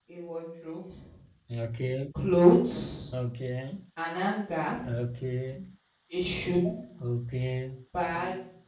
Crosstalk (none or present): none